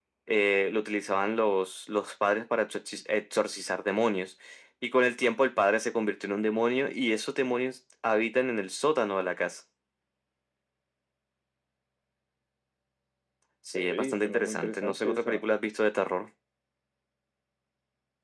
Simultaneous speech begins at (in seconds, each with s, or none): 13.7 s